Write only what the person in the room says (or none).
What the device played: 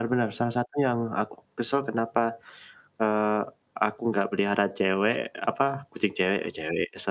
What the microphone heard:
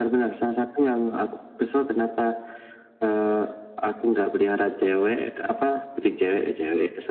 none